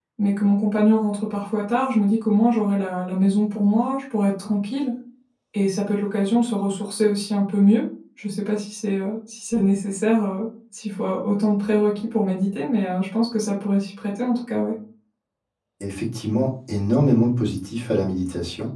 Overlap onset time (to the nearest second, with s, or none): none